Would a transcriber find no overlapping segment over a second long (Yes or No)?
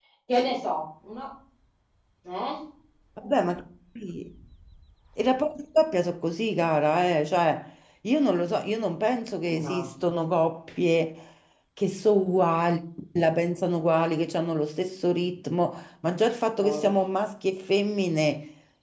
Yes